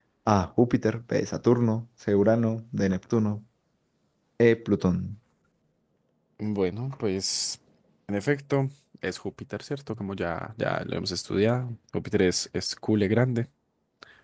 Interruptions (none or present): none